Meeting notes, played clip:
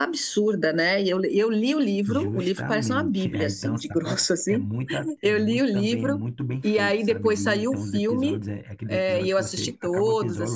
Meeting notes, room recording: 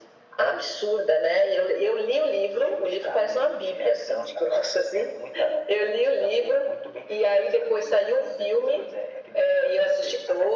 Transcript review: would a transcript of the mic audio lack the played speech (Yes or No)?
No